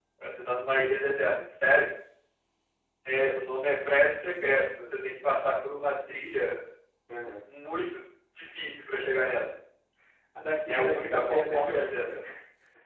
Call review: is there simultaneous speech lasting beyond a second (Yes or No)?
Yes